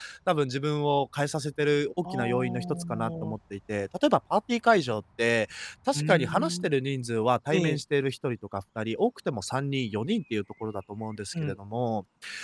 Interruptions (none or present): present